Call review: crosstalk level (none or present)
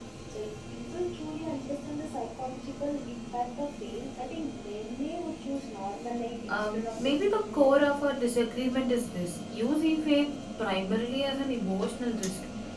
present